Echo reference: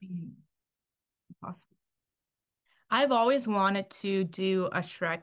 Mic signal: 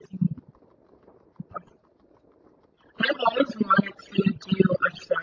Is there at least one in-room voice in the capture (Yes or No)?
No